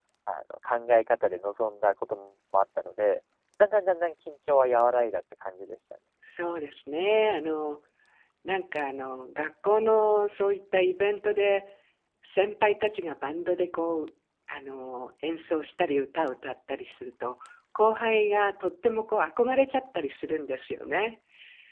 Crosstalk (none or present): none